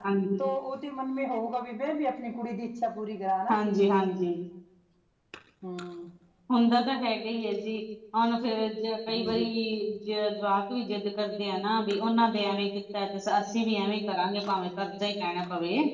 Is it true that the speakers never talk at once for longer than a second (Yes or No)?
Yes